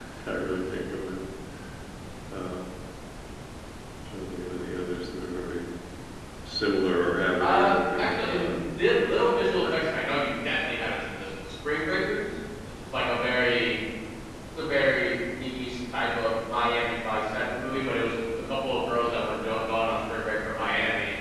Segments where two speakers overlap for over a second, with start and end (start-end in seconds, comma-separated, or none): 7.4-8.6